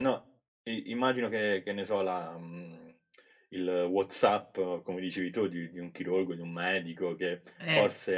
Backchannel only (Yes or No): Yes